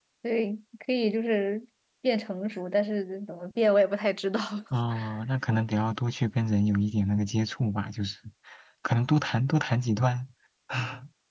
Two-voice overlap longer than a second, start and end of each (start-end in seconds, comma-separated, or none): none